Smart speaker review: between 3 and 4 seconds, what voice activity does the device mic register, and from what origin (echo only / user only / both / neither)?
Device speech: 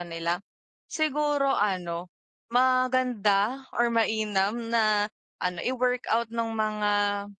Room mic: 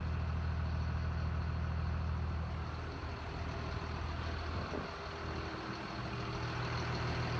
neither